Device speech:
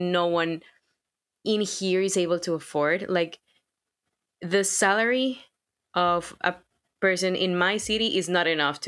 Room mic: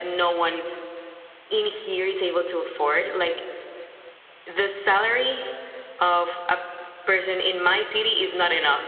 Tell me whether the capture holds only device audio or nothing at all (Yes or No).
Yes